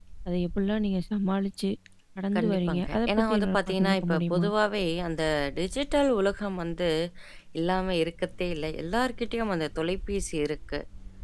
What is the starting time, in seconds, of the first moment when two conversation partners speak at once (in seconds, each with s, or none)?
2.4 s